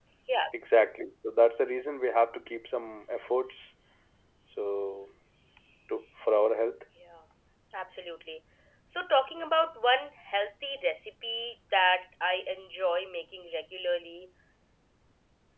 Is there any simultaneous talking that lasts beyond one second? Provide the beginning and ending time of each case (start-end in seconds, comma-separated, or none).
none